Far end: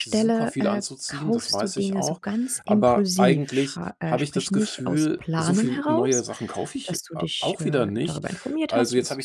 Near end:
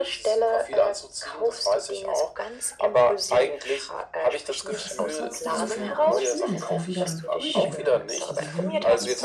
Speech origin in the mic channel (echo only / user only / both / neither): both